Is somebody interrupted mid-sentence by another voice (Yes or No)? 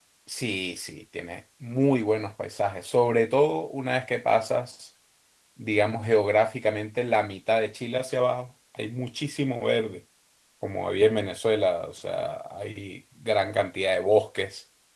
No